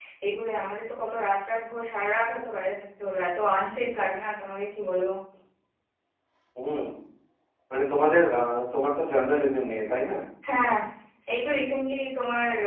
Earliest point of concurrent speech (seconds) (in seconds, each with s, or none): none